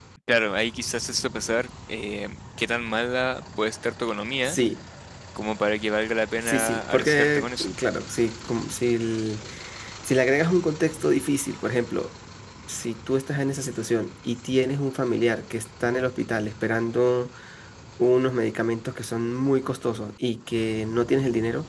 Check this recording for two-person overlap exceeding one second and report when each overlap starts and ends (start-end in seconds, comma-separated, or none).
6.4-7.7